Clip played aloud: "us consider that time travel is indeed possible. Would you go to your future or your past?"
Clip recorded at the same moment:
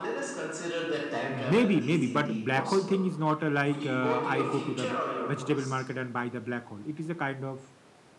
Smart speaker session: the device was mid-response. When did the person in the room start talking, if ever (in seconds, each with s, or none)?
1.3 s